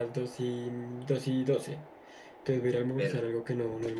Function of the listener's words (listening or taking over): listening